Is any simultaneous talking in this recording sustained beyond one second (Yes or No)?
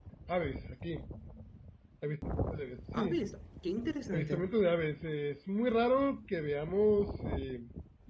No